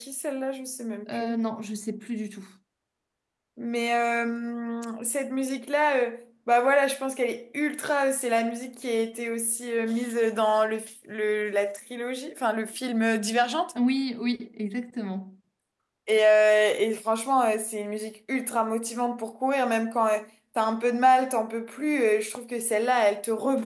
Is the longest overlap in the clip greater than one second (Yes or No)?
No